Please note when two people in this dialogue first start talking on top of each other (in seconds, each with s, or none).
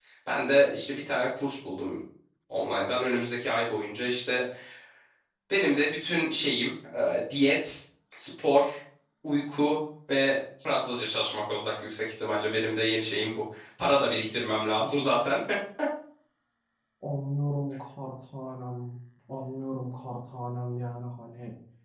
none